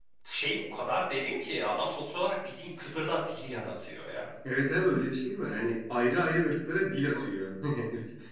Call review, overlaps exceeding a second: none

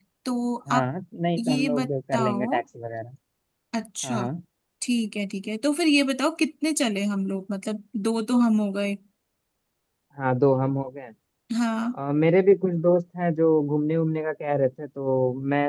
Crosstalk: present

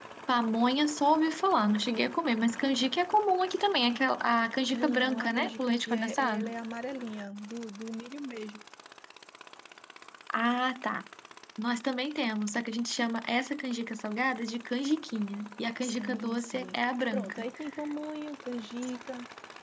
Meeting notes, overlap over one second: present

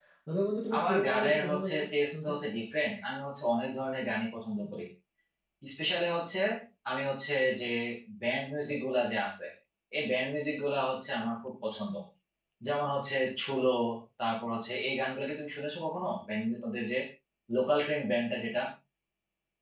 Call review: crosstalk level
present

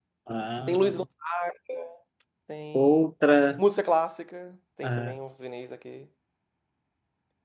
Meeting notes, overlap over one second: none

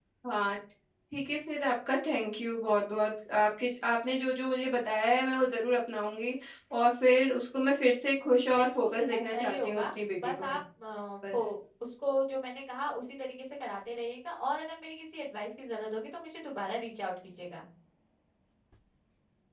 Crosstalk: present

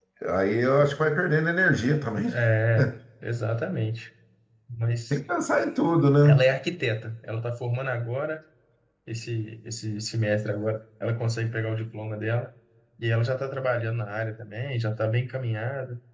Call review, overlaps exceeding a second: none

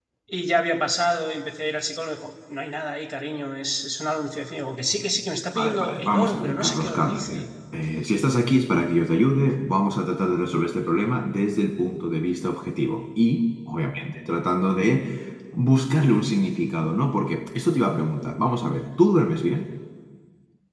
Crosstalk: present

